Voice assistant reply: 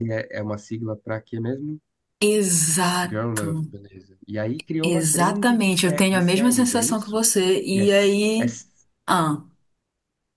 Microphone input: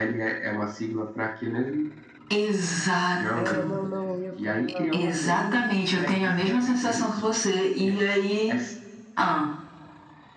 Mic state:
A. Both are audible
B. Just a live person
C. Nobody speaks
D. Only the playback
A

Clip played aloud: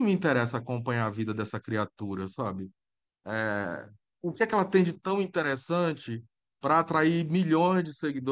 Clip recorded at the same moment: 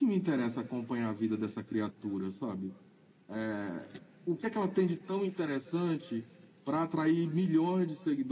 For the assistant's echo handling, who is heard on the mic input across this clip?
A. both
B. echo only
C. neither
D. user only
B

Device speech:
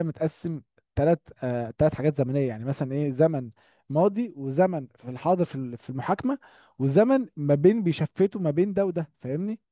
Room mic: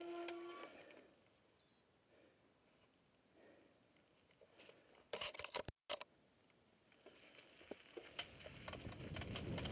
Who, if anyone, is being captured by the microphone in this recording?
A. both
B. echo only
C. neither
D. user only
C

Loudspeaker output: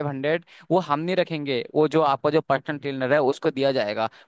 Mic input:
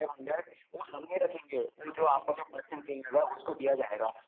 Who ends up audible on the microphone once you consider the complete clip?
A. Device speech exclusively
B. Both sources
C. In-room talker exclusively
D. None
A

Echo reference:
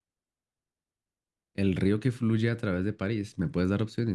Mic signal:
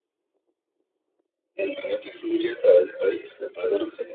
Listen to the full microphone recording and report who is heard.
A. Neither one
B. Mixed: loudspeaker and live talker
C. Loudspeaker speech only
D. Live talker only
C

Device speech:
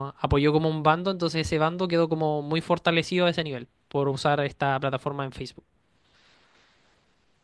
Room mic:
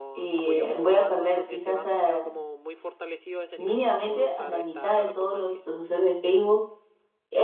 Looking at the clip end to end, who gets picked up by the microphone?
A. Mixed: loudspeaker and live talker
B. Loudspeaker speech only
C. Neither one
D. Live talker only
A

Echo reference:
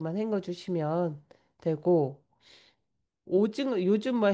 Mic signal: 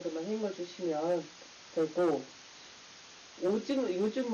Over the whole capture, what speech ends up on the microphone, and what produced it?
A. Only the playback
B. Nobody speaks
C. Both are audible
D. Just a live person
A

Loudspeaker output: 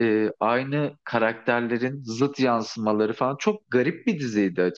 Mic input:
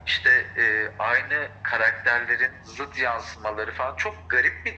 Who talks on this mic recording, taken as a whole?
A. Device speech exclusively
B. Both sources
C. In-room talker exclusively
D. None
A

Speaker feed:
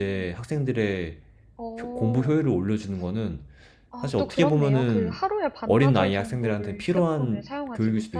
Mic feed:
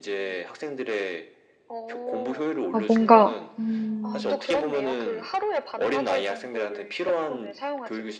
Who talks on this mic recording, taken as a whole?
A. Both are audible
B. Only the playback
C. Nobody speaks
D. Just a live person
A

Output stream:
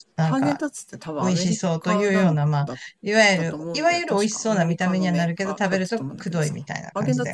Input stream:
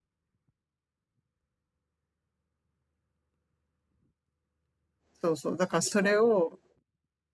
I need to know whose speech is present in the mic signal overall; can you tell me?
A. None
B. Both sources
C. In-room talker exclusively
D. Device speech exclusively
C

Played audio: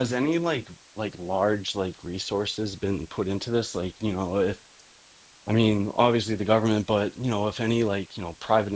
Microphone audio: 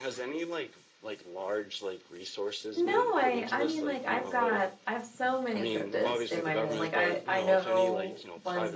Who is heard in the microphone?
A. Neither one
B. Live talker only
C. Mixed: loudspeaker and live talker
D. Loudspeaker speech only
C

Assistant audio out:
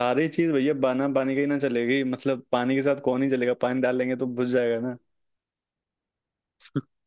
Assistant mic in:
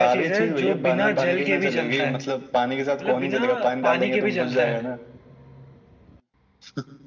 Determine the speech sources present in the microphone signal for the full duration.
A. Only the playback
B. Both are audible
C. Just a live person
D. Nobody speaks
B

